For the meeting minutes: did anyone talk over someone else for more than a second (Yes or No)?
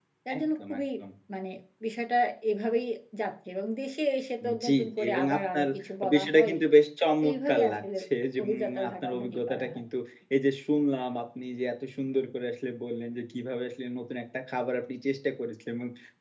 Yes